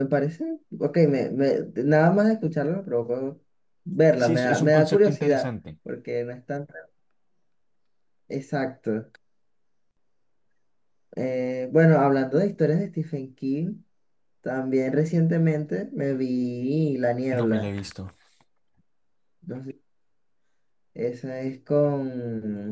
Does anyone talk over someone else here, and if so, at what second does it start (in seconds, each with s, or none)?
4.2 s